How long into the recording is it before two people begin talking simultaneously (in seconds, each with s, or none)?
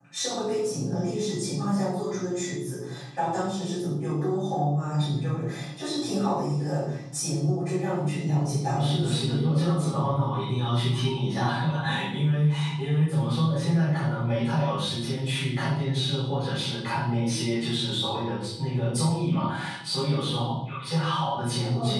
8.7 s